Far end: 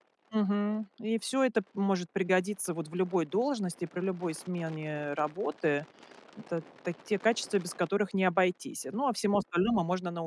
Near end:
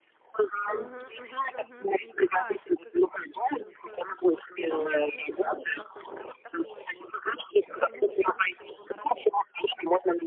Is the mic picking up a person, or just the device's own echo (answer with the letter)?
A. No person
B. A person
B